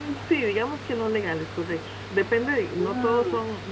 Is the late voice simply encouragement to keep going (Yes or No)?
Yes